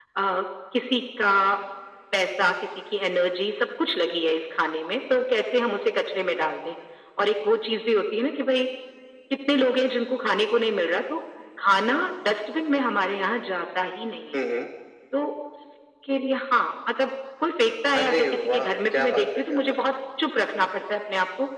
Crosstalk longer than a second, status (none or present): present